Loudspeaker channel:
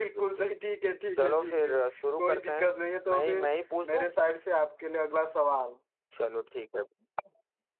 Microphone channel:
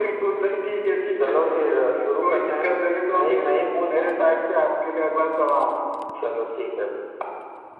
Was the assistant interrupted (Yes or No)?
No